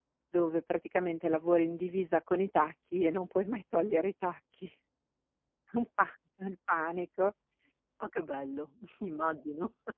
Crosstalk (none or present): none